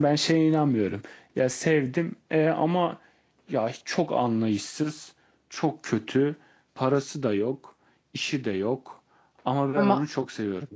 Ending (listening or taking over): listening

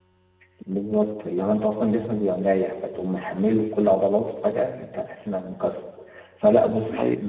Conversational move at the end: listening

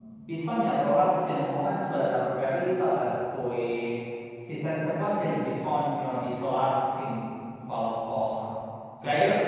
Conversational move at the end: listening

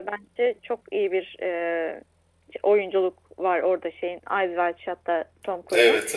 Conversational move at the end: listening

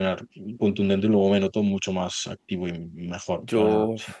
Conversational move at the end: taking over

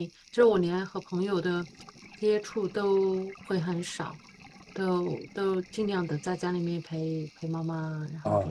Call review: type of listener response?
taking over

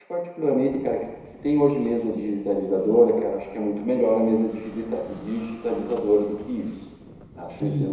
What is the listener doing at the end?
taking over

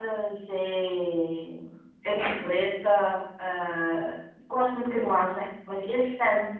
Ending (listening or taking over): listening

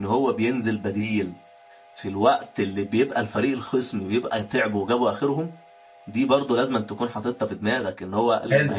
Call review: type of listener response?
listening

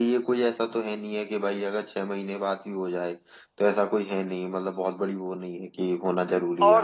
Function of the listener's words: taking over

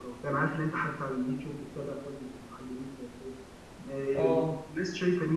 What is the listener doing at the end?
listening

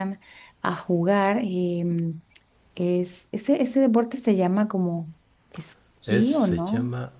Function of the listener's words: taking over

